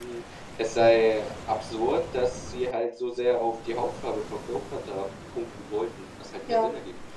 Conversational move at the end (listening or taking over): taking over